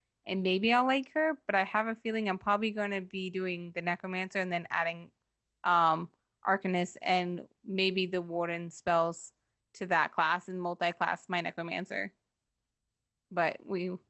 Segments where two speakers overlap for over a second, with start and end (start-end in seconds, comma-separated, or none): none